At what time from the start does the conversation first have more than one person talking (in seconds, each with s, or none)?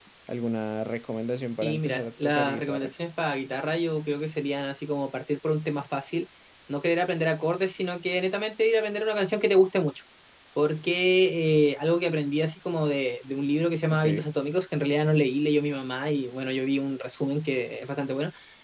1.6 s